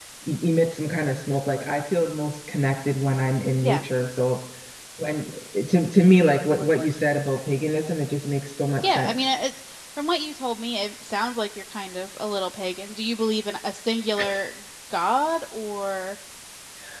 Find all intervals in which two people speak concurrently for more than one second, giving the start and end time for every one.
none

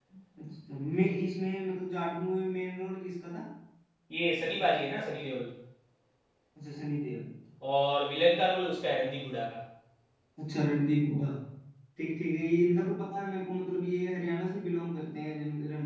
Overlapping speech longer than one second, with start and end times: none

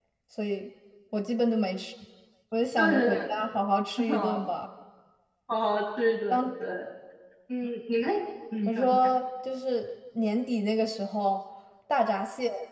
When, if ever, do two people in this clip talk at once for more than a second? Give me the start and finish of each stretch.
none

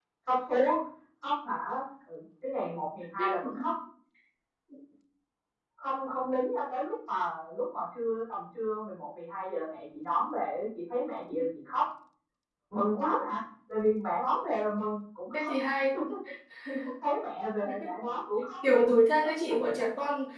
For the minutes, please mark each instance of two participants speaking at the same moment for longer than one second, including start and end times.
none

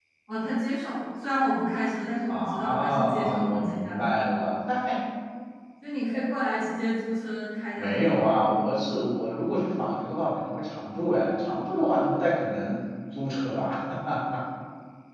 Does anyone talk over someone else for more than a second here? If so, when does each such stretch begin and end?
2.3-4.1

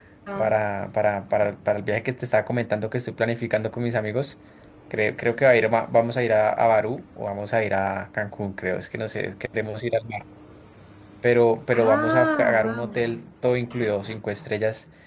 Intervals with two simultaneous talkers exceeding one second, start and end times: 11.7-13.0

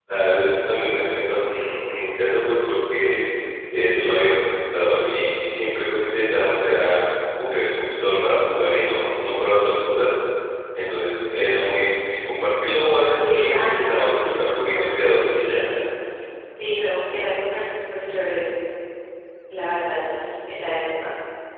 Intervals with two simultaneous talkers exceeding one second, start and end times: 13.2-15.6

